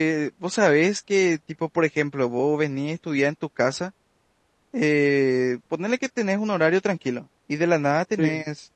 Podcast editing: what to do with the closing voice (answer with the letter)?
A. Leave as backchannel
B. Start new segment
A